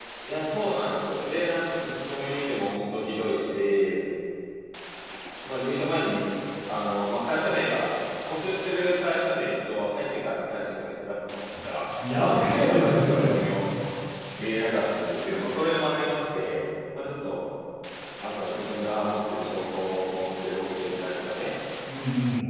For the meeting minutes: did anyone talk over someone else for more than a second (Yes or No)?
Yes